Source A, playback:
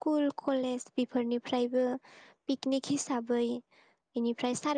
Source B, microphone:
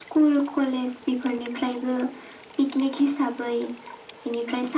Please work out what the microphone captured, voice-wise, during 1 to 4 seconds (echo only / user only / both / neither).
echo only